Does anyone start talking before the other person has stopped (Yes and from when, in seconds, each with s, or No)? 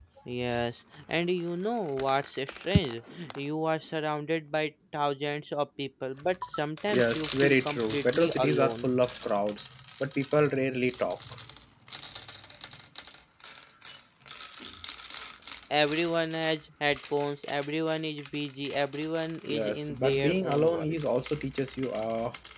Yes, from 6.9 s